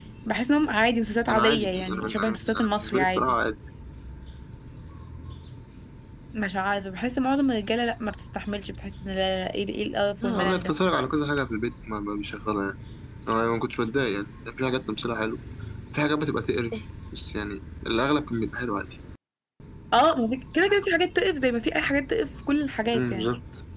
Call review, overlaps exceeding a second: present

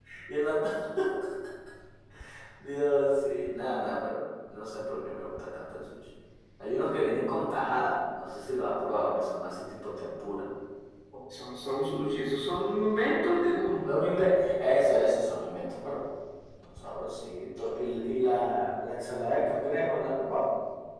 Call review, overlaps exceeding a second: none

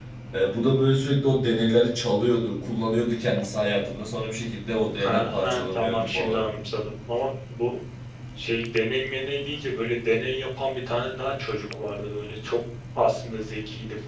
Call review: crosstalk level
present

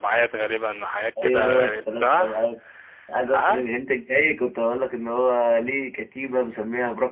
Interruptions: present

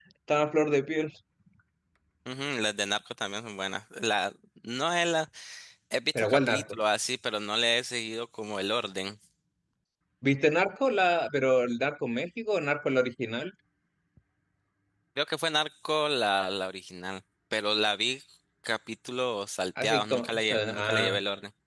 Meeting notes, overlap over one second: present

